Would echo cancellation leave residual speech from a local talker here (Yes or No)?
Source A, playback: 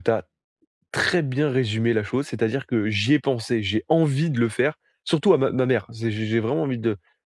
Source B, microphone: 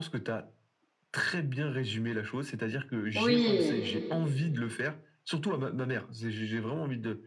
Yes